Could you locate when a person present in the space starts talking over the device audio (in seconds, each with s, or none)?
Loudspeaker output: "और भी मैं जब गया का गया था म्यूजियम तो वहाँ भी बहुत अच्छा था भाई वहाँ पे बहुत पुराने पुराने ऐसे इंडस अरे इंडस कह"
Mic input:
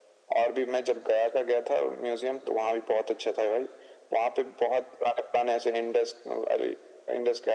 none